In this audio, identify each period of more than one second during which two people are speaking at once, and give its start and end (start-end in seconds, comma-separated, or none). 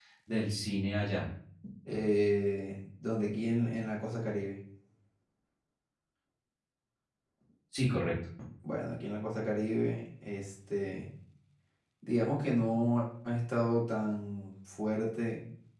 none